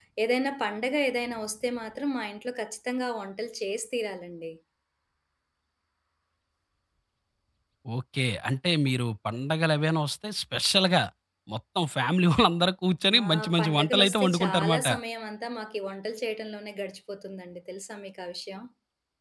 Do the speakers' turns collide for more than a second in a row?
Yes, from 13.1 s

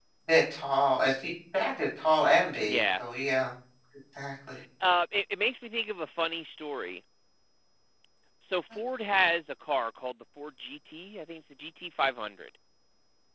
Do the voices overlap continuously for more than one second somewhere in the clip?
No

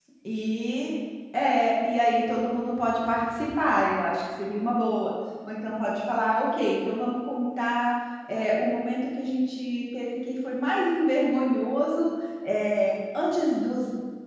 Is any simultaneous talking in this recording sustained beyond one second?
No

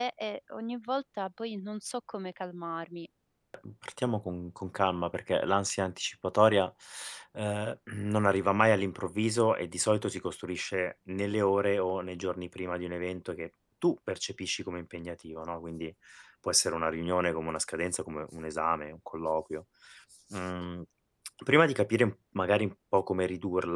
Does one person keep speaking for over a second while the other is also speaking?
No

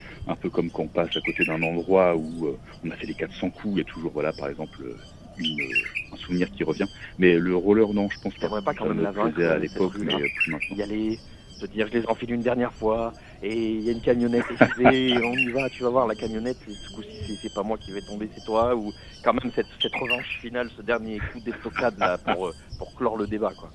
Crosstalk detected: Yes, from 8.4 s

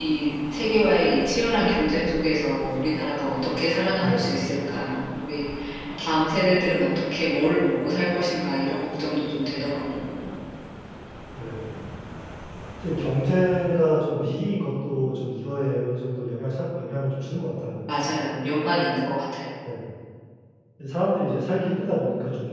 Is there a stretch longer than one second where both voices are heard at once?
No

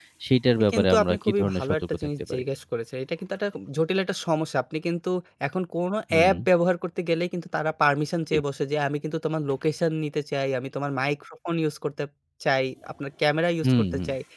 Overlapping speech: Yes, from 0.6 s

